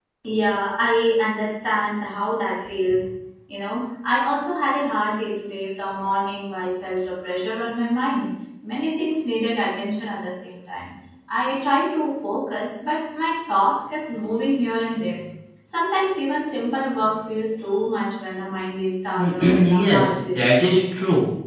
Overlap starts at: 19.1 s

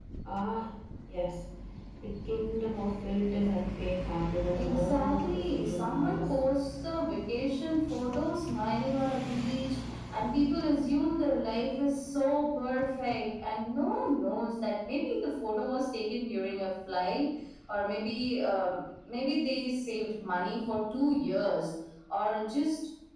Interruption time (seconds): 4.5 s

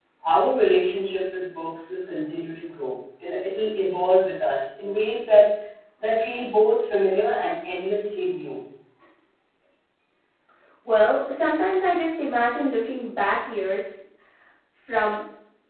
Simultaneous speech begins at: none

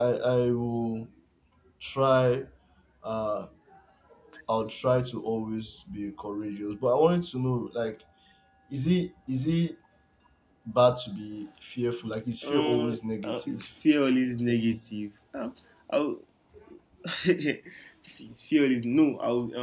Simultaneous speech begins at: 12.4 s

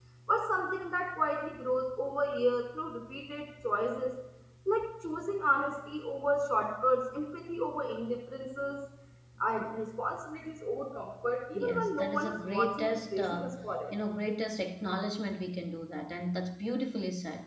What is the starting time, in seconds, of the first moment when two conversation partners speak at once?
11.6 s

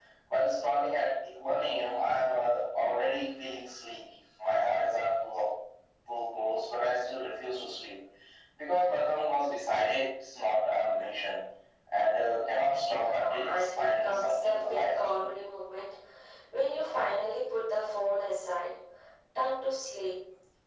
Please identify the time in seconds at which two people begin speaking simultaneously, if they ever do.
12.9 s

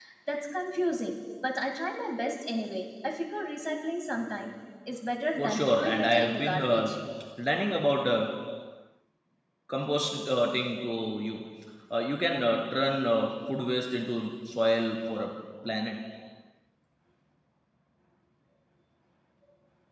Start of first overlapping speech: 5.4 s

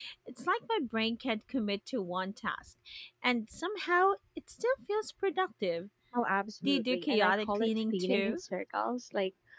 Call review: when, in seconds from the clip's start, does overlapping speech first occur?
6.6 s

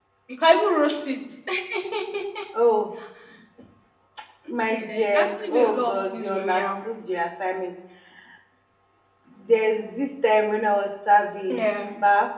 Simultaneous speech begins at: 4.7 s

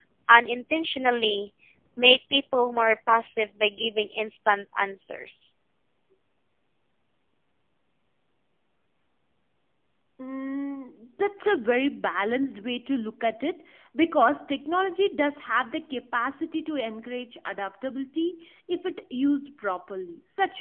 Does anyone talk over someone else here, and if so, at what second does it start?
none

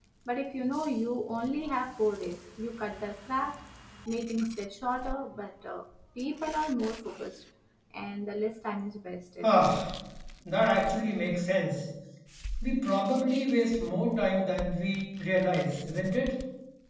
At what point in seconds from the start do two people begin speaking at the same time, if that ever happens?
none

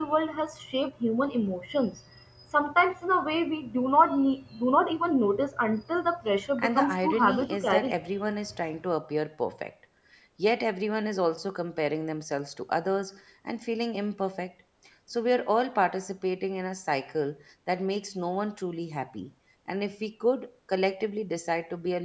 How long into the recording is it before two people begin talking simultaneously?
6.6 s

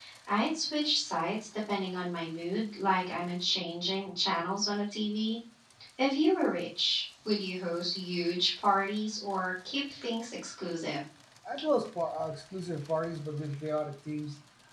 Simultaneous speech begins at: none

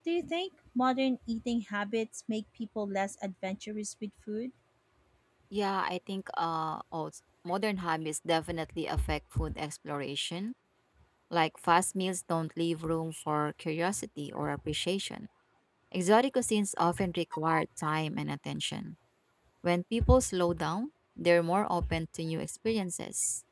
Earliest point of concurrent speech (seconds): none

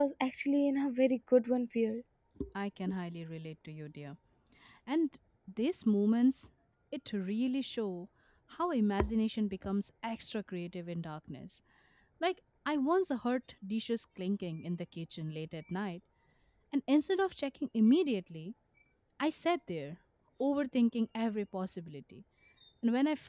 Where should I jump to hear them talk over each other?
none

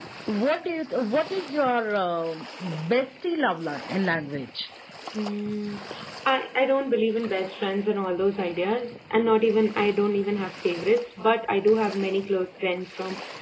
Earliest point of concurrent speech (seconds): none

